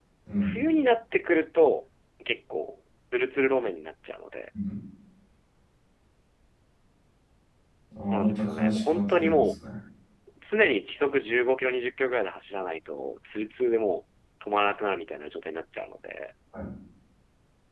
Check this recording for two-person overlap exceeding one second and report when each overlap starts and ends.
8.1-9.5

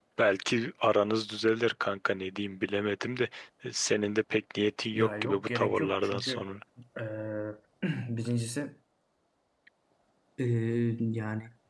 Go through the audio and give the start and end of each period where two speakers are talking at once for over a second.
4.9-6.4

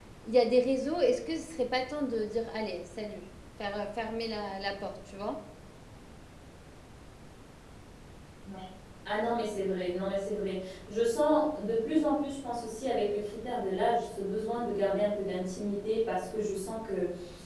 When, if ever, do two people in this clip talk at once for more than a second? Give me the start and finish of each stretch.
none

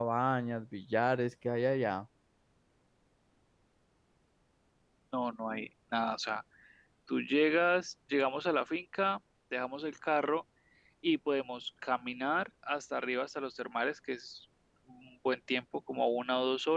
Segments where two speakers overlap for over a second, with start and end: none

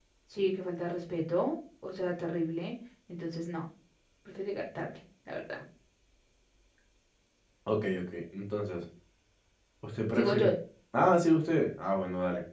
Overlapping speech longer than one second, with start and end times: none

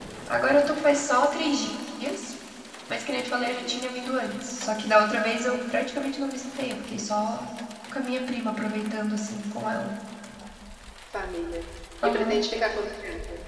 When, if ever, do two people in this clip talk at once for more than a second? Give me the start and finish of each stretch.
none

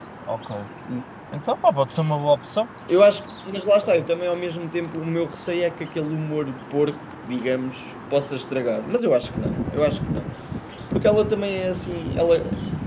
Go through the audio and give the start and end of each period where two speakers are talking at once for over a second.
none

